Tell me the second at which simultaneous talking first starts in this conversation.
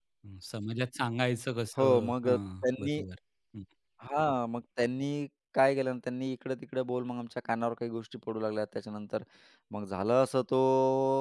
1.8 s

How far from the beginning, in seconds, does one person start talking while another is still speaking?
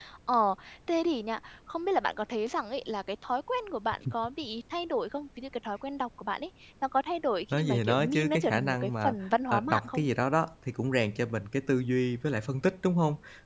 7.5 s

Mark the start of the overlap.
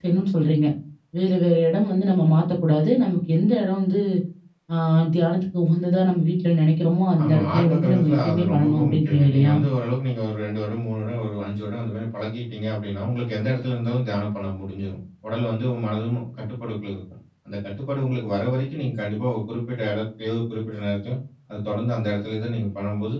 7.2 s

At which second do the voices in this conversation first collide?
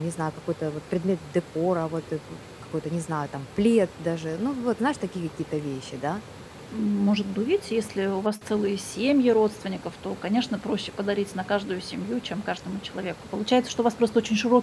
none

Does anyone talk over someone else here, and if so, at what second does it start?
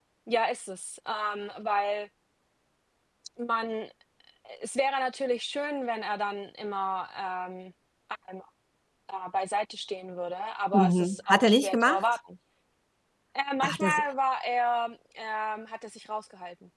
10.7 s

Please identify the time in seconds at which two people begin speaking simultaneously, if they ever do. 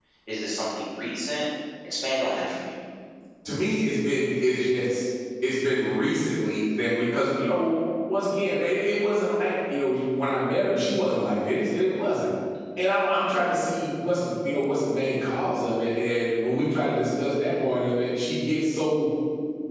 none

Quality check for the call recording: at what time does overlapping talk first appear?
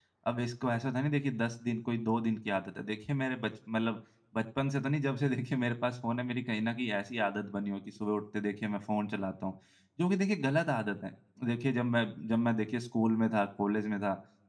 none

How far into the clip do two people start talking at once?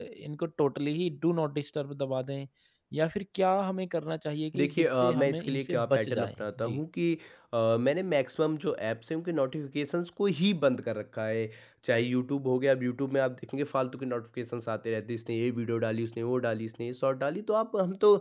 4.5 s

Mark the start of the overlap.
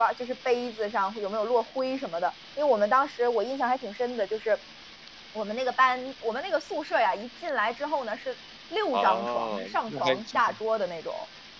8.9 s

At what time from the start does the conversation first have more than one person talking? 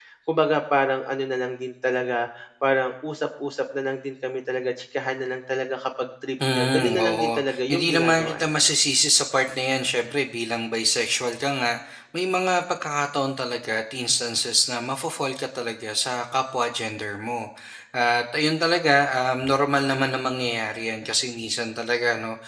6.4 s

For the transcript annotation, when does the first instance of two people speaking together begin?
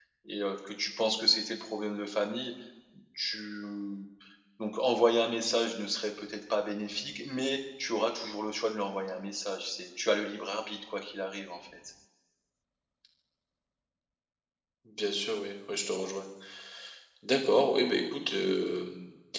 none

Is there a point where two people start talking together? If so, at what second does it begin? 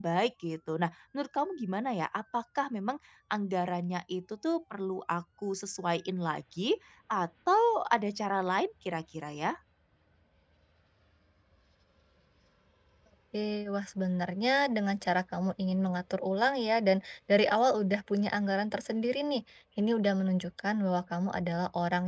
none

